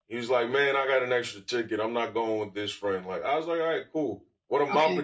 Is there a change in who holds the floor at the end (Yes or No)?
No